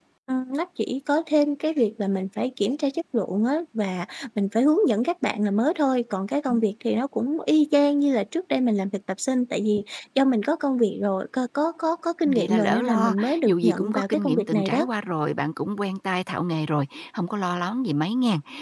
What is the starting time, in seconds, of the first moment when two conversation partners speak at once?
12.2 s

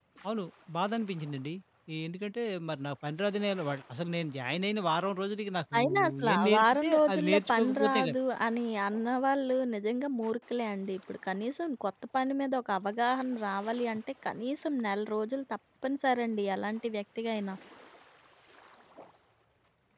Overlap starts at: 5.7 s

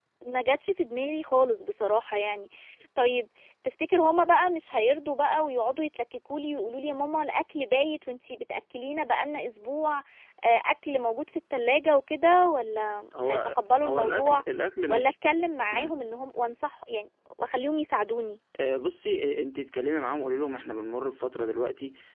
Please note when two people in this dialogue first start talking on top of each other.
13.2 s

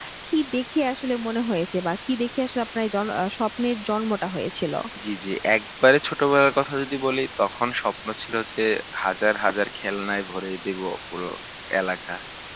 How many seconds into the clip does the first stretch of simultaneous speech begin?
none

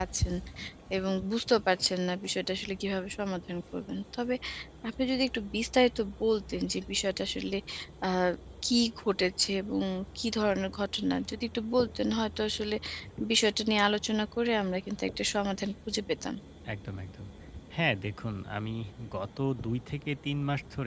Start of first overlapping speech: none

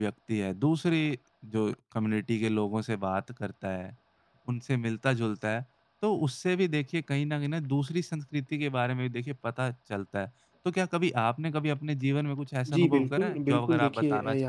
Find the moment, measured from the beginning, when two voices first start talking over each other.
12.7 s

